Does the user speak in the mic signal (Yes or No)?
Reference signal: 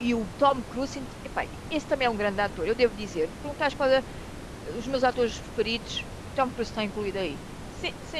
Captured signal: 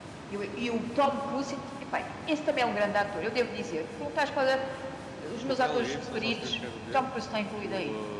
Yes